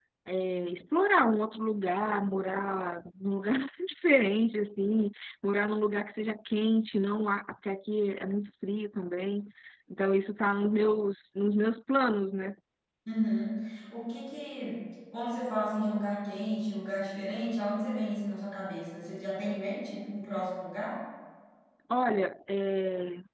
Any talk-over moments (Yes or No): No